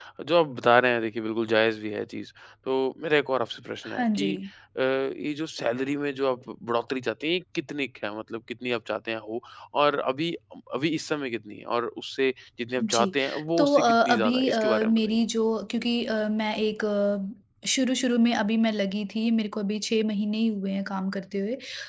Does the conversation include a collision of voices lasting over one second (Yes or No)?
Yes